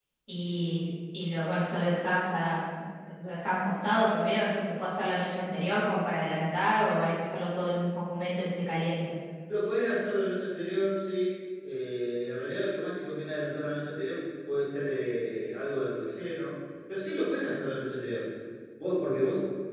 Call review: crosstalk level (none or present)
none